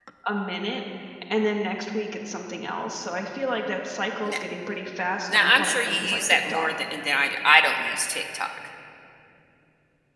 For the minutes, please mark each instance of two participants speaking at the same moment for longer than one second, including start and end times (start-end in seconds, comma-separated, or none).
5.3-6.7